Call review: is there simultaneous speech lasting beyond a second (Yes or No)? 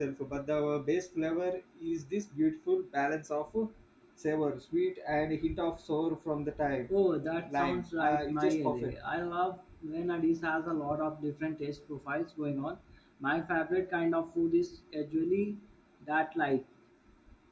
Yes